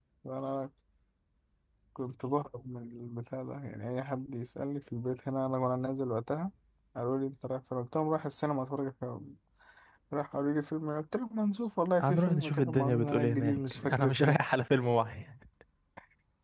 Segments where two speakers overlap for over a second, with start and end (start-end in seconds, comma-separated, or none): 12.0-14.4